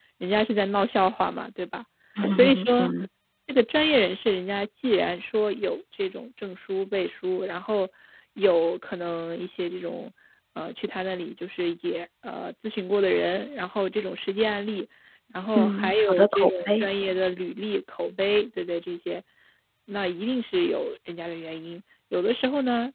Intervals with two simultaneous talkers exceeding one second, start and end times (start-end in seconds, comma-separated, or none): 15.6-16.9